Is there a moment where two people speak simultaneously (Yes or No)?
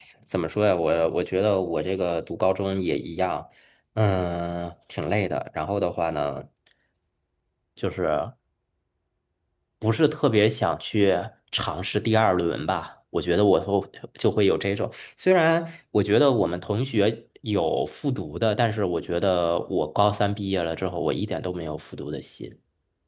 No